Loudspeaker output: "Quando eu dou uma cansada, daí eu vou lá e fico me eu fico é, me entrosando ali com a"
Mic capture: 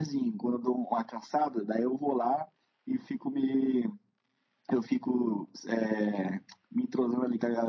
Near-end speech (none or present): none